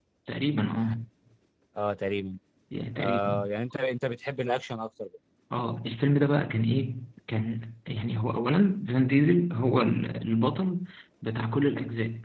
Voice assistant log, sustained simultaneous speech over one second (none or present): none